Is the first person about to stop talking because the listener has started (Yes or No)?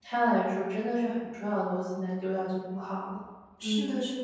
Yes